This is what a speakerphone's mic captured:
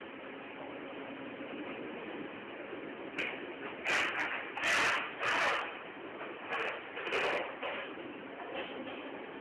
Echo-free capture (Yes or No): Yes